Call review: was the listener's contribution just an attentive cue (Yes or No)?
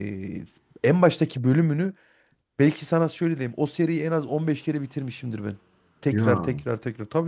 Yes